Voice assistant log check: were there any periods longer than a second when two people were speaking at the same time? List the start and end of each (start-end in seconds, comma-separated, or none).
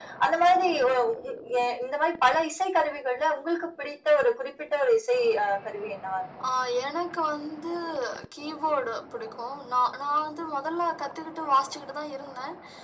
none